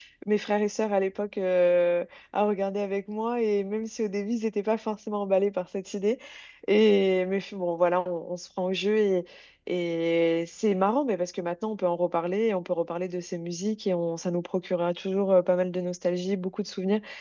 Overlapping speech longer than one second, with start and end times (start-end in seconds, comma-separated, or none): none